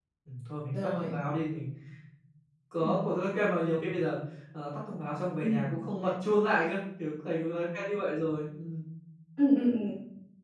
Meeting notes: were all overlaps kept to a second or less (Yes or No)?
Yes